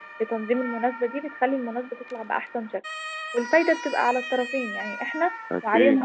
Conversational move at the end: listening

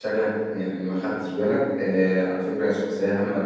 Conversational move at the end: listening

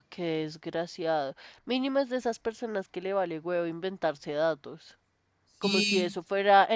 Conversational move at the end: listening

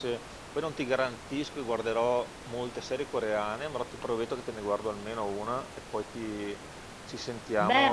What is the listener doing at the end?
taking over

